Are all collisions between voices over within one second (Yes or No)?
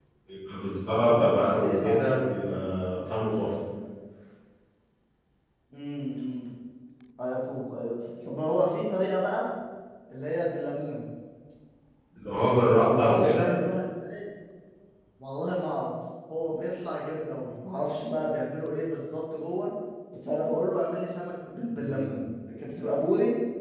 No